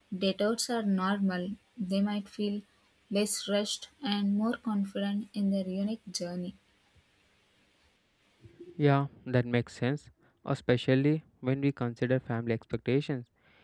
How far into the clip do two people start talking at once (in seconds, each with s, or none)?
none